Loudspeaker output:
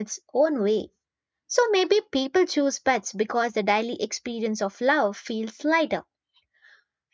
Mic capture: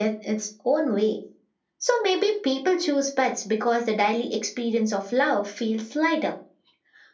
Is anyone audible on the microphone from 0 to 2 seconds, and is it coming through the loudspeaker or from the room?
echo only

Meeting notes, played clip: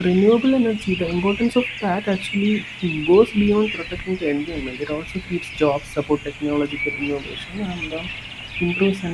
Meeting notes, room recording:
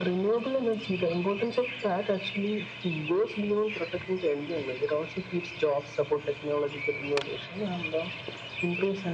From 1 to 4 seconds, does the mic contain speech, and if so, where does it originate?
echo only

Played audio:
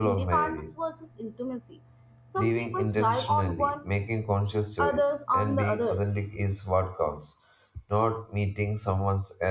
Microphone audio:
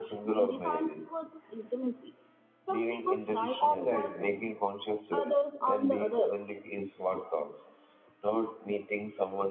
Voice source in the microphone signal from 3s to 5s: both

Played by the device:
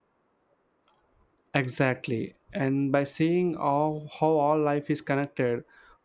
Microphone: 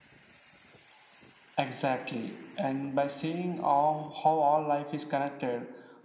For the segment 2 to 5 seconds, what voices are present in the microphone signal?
echo only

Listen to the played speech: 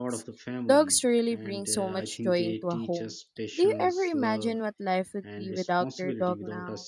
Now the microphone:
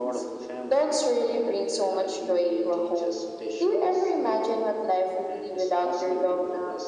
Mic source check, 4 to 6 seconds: echo only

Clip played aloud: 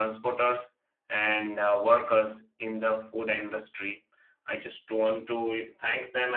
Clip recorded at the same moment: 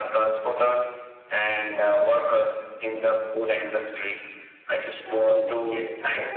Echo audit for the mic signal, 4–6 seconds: both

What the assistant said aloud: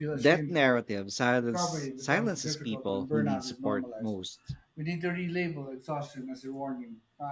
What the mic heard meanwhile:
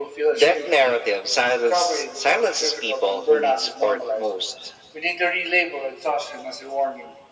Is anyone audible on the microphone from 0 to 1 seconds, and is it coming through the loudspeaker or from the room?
echo only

